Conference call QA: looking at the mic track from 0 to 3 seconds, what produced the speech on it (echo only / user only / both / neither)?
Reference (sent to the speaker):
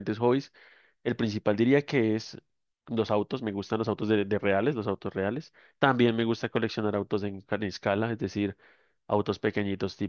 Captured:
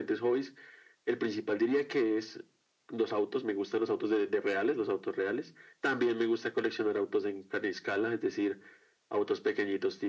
echo only